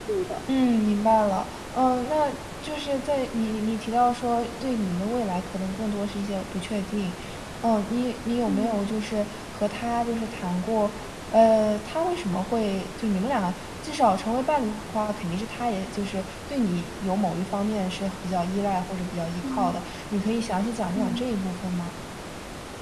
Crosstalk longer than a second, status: none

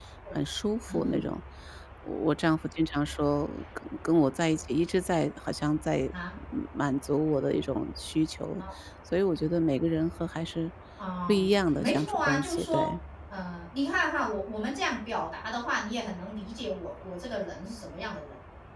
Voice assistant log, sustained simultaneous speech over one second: present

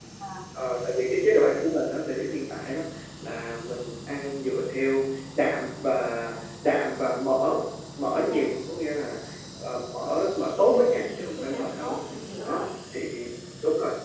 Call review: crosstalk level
present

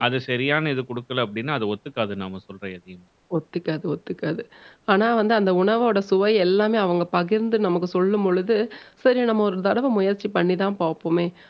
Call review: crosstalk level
none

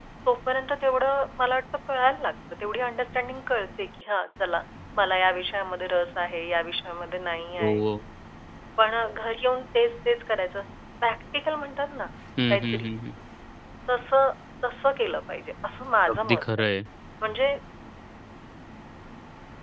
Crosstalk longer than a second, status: none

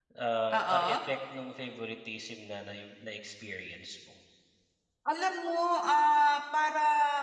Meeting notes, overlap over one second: none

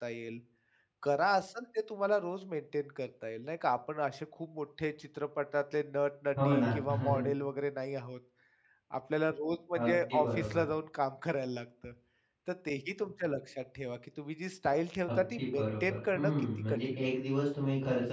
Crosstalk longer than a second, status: present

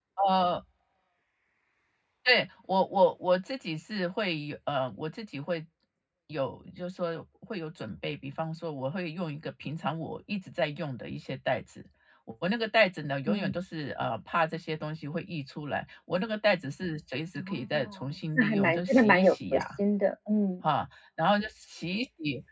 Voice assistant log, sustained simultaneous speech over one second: present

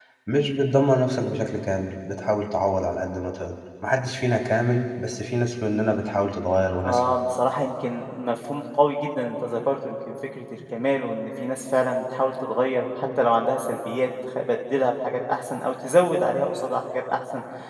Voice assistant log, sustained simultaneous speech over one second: none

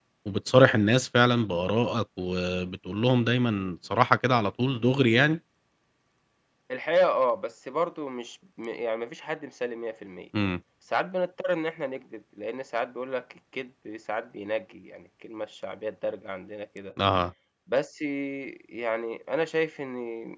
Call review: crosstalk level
none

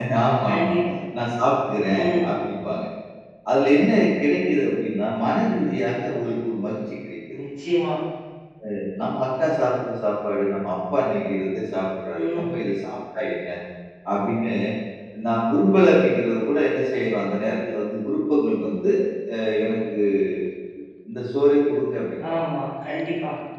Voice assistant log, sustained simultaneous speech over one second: none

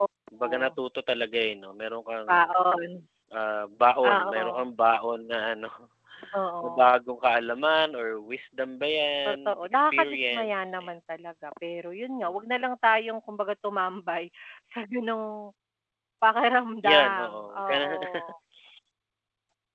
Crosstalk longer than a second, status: present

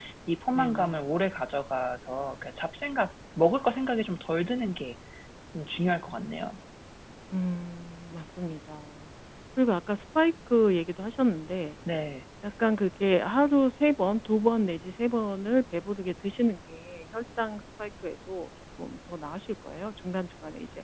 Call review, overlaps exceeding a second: none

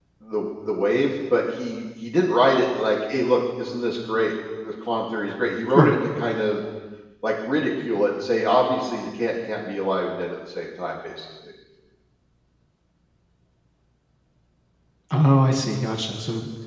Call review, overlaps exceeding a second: none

